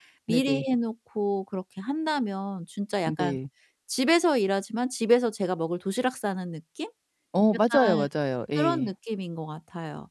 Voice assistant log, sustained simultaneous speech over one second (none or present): none